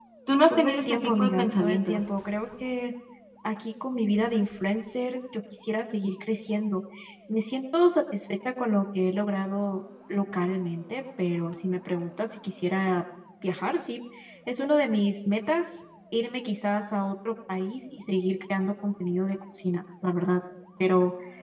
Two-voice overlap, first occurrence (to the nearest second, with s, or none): 1 s